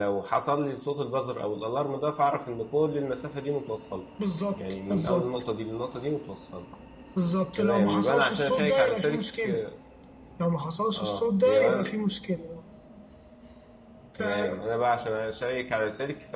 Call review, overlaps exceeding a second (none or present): present